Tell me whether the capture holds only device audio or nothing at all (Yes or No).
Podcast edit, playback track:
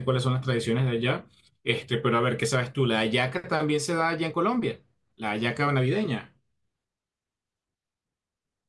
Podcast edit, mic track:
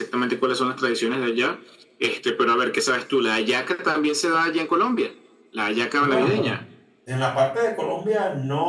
No